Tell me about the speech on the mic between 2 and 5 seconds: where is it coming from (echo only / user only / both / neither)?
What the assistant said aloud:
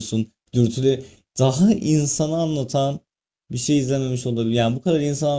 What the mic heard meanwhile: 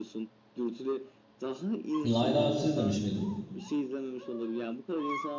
both